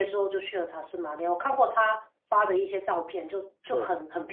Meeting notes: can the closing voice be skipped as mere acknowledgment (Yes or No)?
Yes